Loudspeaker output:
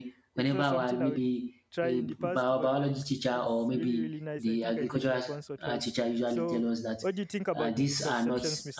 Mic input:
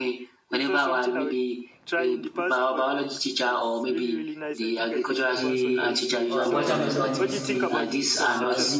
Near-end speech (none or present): present